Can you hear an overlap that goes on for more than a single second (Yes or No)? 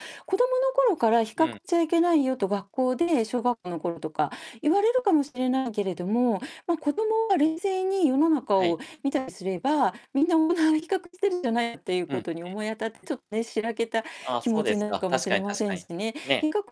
Yes